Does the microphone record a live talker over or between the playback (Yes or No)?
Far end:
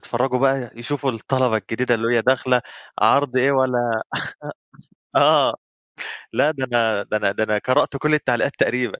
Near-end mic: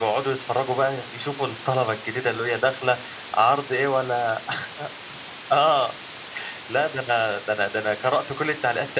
No